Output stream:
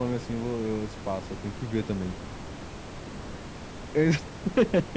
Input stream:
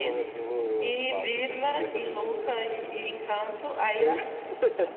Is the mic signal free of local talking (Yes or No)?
No